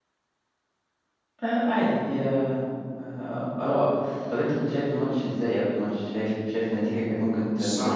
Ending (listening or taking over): taking over